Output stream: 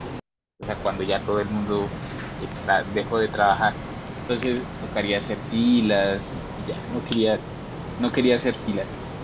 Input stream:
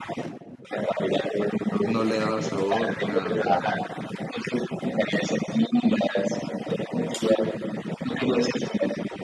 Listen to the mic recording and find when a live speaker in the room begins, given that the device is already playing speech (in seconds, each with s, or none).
1.8 s